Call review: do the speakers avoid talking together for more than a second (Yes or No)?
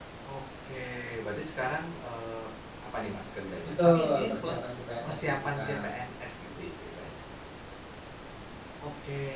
No